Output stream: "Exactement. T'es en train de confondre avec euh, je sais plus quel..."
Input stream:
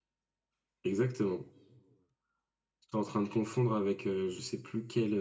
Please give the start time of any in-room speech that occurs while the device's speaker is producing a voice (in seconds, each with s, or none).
none